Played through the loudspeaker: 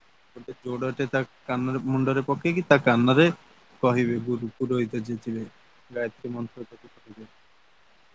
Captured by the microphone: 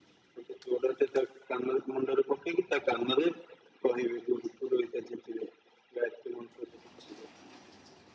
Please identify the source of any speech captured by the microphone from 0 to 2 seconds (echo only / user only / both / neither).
echo only